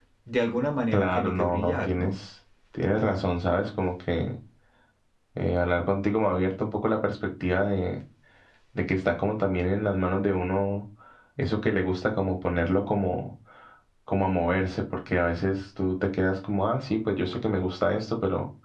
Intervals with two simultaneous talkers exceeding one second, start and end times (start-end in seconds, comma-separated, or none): 0.9-2.1